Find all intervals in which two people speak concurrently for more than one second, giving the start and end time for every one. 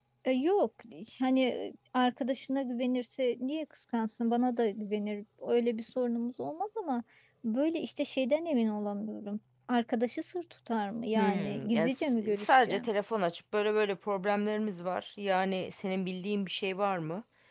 11.2-12.9

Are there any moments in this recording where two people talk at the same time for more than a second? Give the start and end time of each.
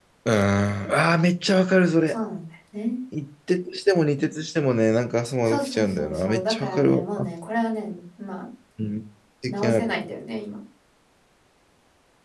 5.4-7.0

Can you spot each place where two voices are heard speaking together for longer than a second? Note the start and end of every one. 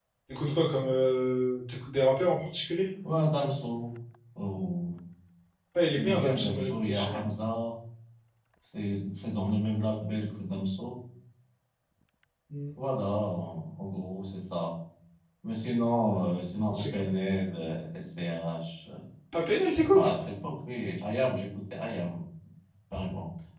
6.0-7.2

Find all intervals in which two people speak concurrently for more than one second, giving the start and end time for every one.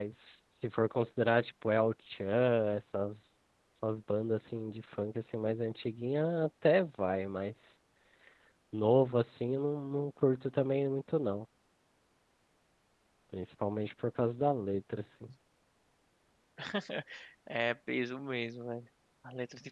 none

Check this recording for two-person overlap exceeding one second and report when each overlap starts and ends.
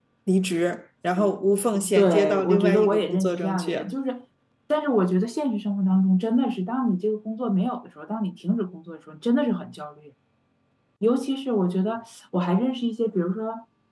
2.0-3.8

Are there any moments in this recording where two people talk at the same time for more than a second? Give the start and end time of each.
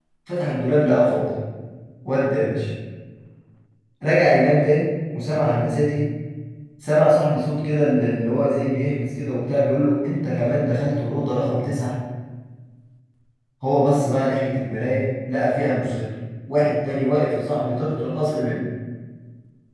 none

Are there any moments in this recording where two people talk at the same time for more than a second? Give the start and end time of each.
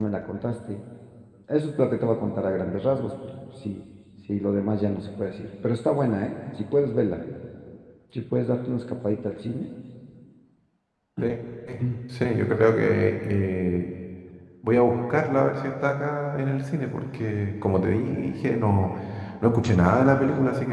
none

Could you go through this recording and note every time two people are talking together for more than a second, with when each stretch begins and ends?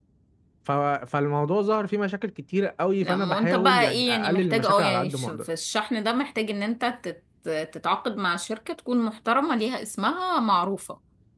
3.0-5.5

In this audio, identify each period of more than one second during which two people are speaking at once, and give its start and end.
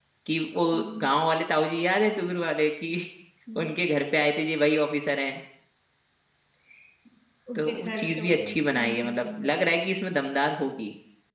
7.5-9.5

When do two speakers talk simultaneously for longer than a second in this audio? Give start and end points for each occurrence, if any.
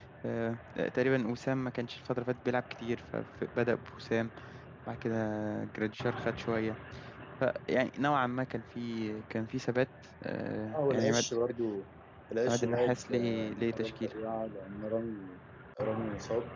12.5-14.1

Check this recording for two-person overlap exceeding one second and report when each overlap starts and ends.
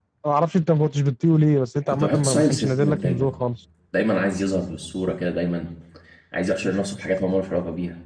1.9-3.3

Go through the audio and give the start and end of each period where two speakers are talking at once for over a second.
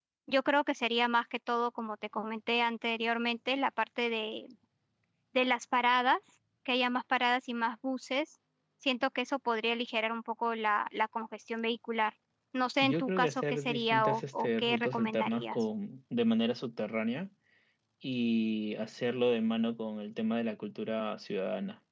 12.8-15.6

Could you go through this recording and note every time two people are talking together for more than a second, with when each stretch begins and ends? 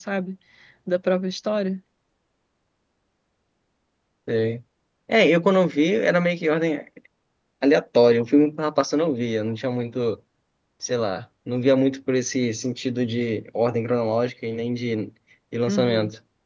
none

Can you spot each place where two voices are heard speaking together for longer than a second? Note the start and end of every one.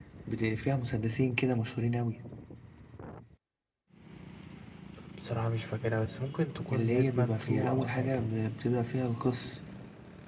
6.7-8.1

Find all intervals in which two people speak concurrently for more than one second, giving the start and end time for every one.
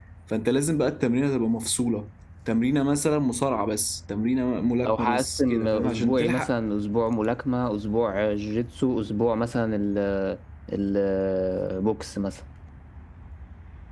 4.9-6.5

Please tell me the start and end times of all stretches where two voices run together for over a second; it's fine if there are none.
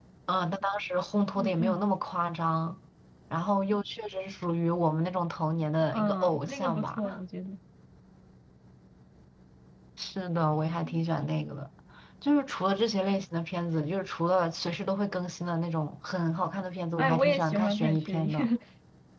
5.9-7.2, 17.0-18.3

